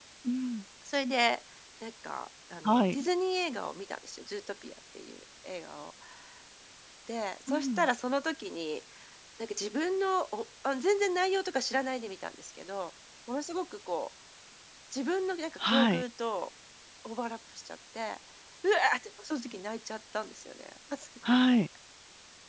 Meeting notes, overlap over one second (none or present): none